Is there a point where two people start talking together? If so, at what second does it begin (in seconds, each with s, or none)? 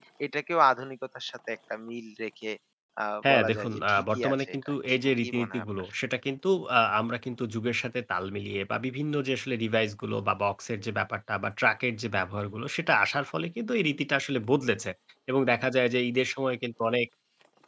3.3 s